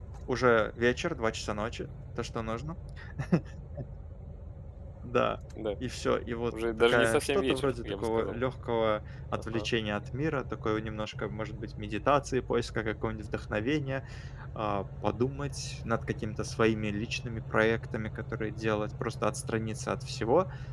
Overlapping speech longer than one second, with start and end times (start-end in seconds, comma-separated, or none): 6.8-8.4